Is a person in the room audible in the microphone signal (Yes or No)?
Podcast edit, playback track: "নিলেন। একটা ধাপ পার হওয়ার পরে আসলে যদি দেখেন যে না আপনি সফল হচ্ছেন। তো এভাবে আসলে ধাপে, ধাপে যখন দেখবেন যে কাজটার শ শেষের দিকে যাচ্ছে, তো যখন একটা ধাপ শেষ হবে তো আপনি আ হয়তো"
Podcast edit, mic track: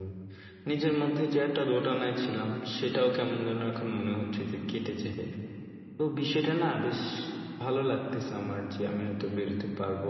Yes